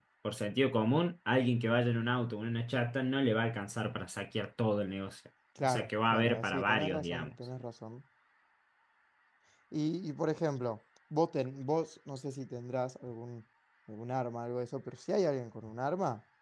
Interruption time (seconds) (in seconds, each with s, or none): 5.6 s